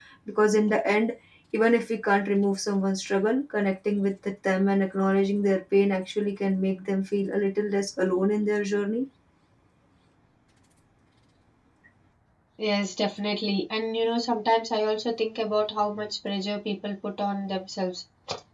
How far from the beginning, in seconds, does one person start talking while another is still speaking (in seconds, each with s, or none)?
none